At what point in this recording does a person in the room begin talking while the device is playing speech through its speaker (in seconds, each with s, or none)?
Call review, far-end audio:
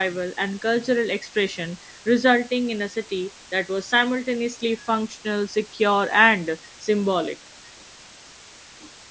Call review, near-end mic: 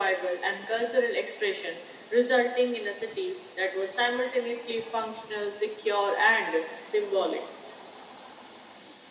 none